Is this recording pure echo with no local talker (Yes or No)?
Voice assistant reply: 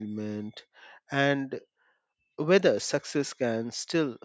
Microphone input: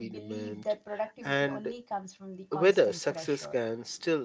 No